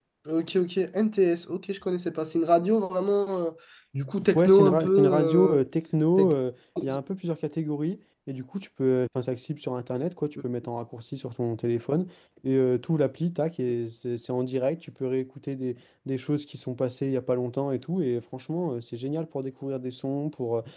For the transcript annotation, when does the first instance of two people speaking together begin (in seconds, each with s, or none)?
4.4 s